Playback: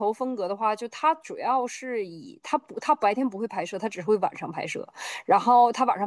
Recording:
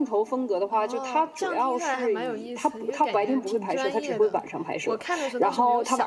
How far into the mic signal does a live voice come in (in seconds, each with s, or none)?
0.7 s